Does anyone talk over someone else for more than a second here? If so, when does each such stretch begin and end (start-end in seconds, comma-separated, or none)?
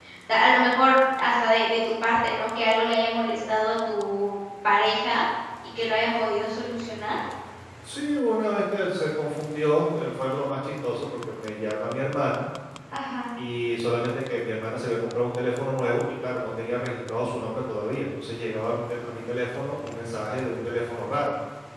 none